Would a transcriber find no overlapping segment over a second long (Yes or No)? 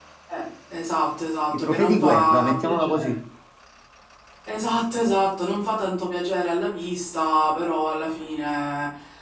No